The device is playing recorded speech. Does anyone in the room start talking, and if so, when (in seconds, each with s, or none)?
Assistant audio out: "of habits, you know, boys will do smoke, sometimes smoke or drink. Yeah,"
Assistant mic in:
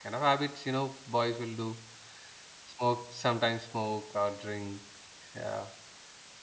none